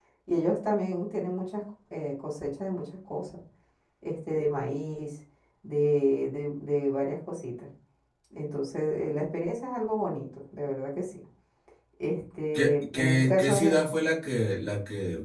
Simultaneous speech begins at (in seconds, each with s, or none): 12.5 s